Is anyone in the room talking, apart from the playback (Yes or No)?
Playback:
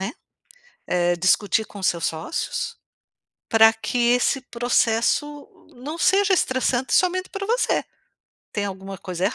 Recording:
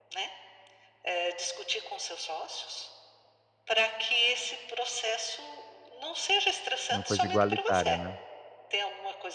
Yes